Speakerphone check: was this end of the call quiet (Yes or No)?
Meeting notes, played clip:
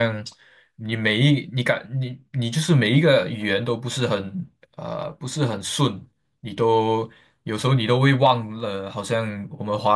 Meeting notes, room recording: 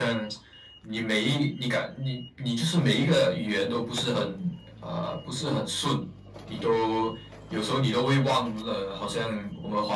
Yes